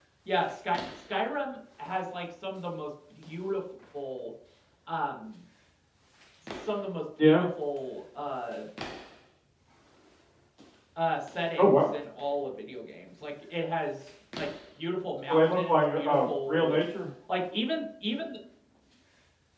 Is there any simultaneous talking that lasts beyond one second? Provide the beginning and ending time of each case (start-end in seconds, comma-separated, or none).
15.3-16.8